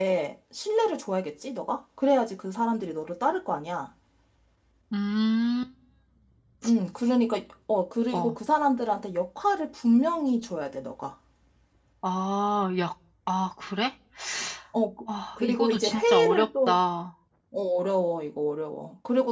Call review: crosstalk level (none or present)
present